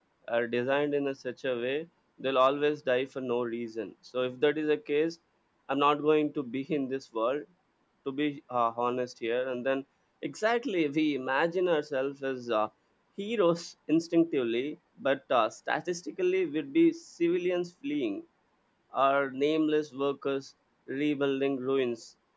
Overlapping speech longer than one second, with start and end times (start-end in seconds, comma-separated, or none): none